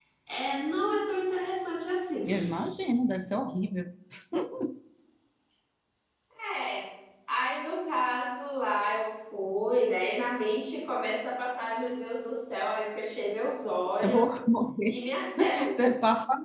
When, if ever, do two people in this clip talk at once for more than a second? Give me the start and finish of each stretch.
none

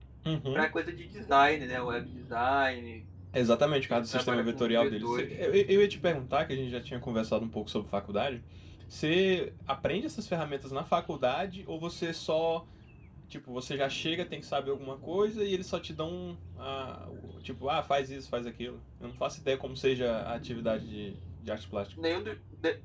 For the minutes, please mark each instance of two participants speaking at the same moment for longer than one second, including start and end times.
3.9-5.3

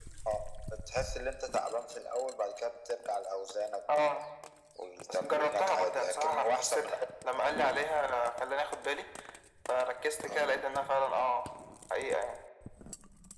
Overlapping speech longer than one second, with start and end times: 5.1-7.0

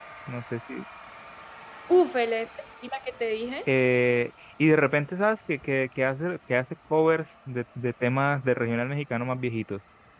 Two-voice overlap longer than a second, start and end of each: none

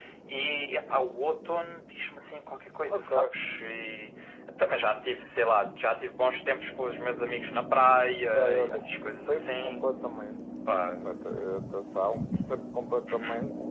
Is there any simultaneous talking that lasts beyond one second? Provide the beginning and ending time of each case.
8.3-9.9

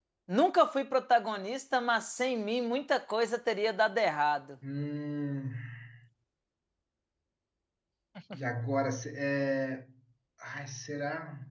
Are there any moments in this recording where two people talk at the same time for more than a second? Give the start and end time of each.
none

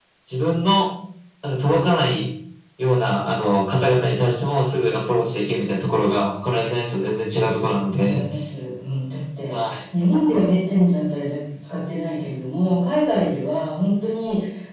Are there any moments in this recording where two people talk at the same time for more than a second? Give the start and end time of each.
none

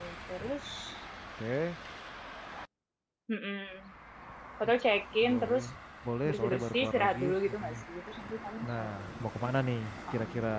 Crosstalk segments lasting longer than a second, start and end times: 6.3-7.7

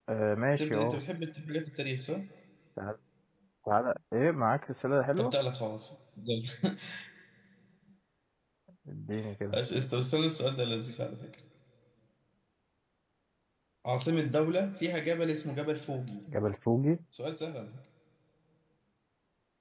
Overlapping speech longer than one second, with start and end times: none

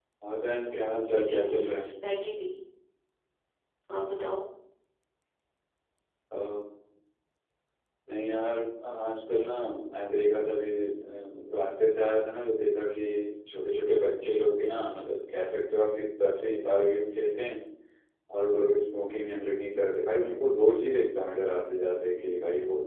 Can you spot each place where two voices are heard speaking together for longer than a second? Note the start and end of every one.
0.6-1.9

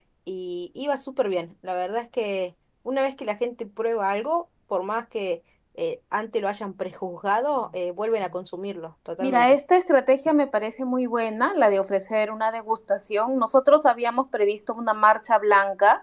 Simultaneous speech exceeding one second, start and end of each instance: none

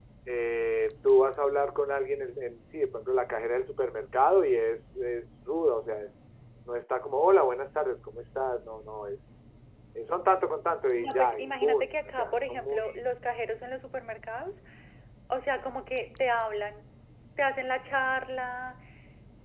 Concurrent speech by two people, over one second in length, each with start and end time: 11.0-13.0

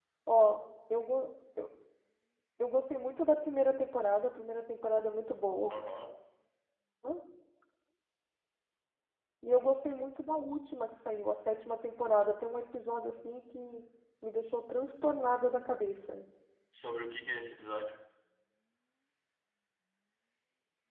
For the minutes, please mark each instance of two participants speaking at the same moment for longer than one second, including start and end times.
none

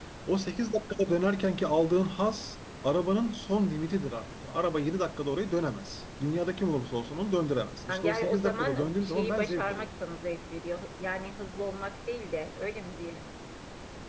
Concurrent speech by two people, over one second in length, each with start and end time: 7.9-9.9

